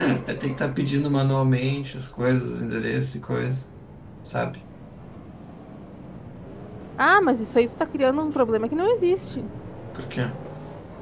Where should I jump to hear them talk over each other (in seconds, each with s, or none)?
none